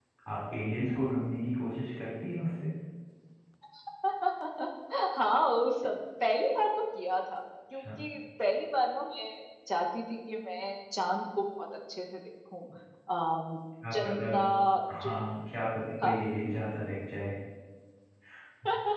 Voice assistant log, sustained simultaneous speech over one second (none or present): none